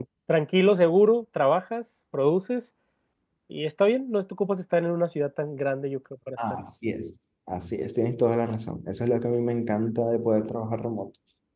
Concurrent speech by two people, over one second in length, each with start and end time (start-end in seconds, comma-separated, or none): none